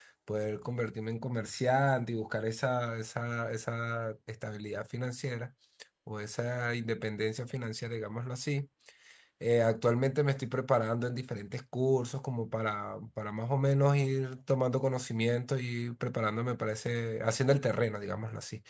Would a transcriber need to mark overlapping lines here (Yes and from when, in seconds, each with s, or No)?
No